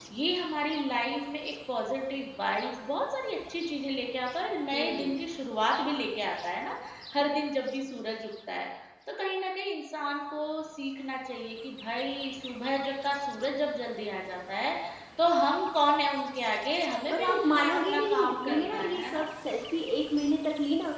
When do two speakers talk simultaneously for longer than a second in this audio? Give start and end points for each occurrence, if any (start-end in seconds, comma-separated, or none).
17.1-19.2